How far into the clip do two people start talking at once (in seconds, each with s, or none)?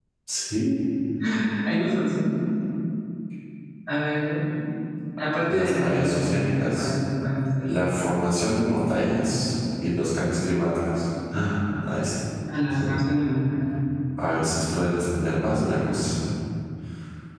5.5 s